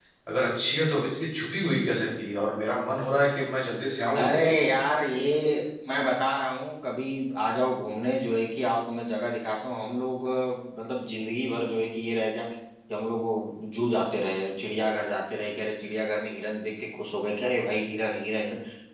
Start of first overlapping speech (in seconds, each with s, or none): none